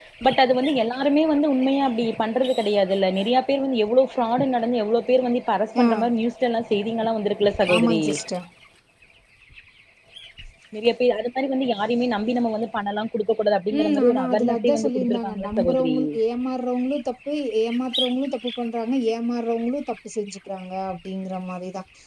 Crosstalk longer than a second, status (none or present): present